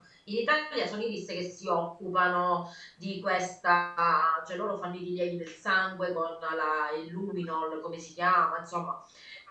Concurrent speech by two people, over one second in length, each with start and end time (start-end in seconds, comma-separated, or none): none